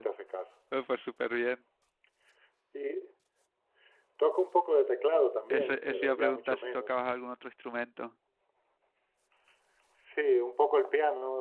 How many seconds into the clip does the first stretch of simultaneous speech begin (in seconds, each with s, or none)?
5.5 s